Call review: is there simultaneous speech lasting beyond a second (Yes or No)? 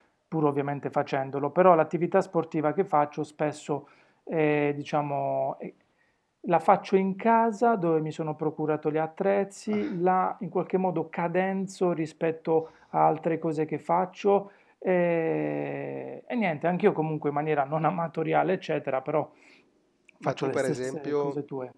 Yes